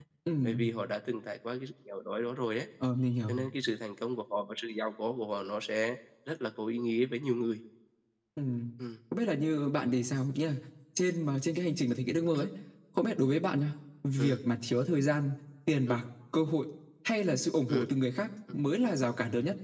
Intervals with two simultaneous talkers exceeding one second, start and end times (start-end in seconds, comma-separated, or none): none